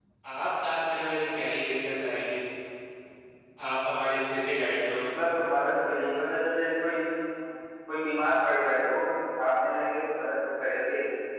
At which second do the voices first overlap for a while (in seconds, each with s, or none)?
none